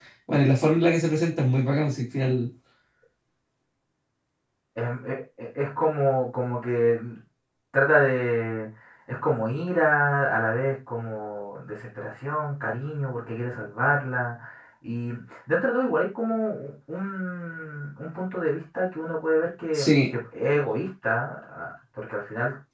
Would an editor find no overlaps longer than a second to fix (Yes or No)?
Yes